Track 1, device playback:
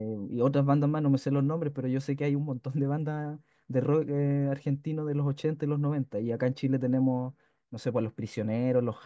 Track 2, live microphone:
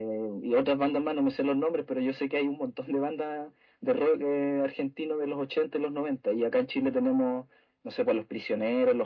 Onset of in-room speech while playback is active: none

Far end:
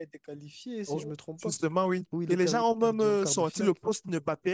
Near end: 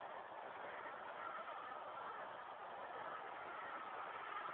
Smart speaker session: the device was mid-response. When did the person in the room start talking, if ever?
none

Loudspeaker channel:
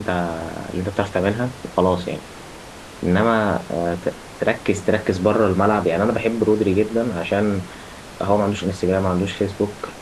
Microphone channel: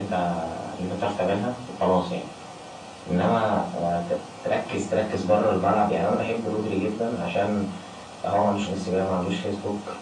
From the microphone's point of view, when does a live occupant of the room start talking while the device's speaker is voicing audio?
none

